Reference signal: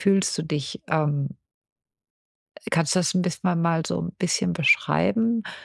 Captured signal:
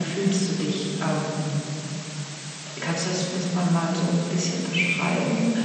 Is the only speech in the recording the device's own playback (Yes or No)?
Yes